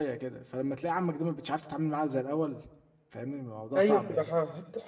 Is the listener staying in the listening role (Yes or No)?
No